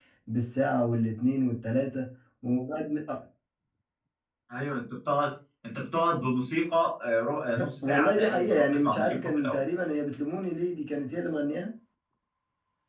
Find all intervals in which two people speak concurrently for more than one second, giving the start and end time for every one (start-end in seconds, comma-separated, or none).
7.8-9.6